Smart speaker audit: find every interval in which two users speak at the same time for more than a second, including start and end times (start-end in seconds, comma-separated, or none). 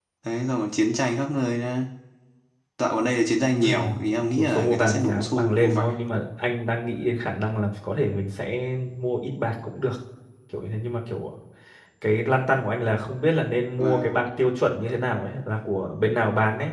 4.4-5.9